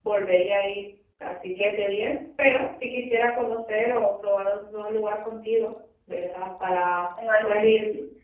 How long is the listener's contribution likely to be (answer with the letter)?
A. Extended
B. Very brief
B